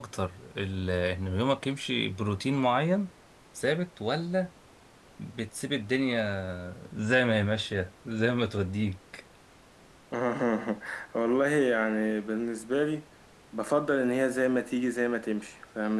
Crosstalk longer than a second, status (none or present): none